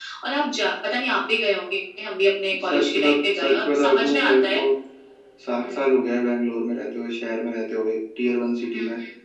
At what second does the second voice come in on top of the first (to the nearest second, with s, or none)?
3 s